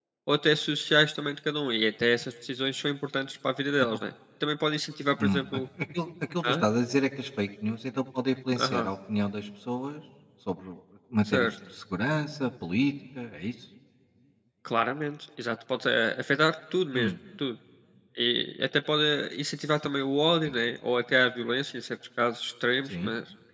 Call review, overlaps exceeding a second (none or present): none